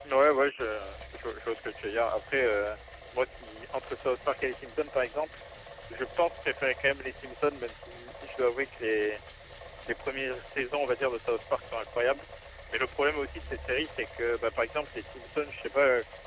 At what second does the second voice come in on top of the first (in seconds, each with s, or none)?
none